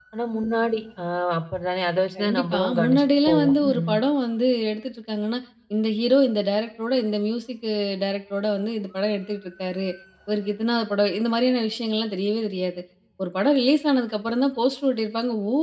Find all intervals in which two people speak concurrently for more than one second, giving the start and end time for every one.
2.2-3.9

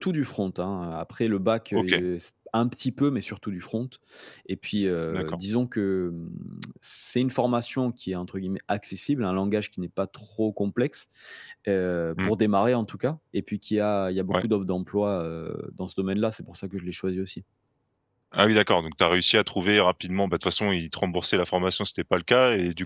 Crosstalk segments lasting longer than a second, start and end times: none

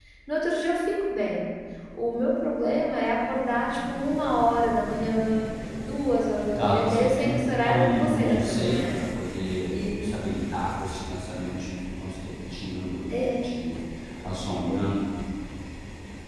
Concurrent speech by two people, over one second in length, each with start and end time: 6.6-8.9

